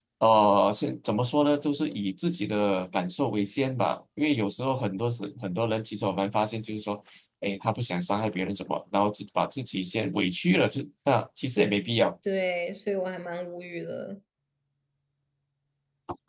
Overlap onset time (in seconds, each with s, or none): none